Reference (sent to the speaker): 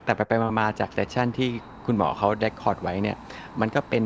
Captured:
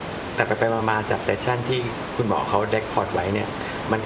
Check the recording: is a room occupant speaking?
No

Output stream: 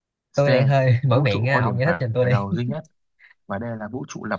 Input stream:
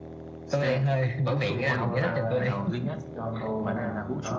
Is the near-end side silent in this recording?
No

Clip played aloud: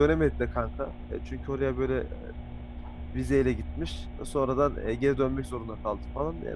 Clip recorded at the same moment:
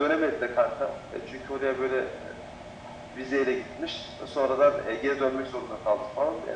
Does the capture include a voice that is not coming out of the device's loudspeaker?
No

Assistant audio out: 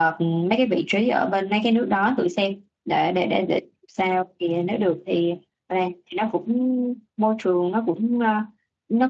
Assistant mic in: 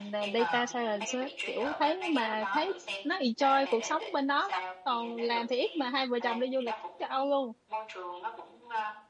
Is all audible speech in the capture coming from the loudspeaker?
No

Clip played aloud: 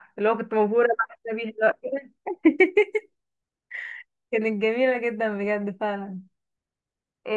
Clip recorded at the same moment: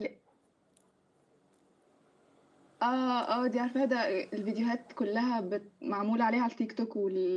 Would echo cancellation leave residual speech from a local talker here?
Yes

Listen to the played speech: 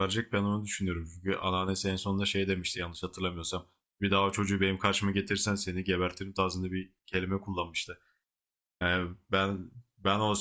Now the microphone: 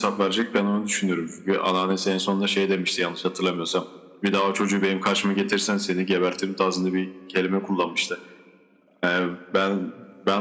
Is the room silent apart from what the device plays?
Yes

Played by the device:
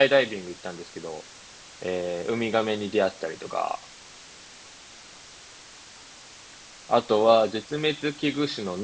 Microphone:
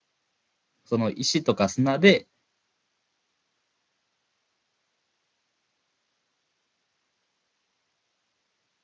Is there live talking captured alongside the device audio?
Yes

